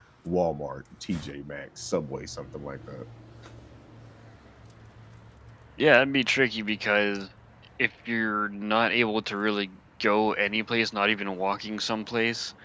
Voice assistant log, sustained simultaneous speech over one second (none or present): none